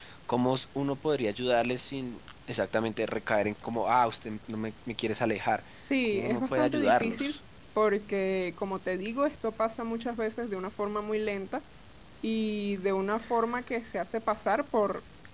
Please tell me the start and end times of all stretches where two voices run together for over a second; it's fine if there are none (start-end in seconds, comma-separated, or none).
6.1-7.4